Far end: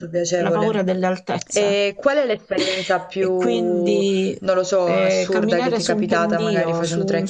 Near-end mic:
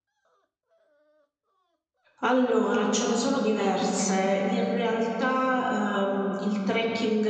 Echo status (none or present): none